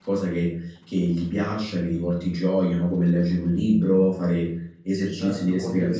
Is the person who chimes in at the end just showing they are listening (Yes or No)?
Yes